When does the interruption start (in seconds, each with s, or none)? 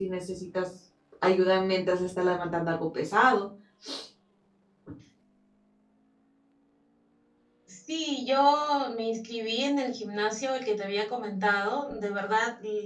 none